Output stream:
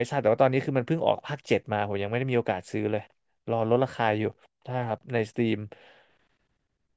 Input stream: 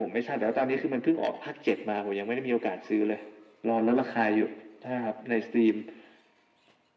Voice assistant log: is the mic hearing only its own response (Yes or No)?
Yes